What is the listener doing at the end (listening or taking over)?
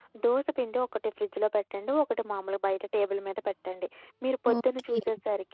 listening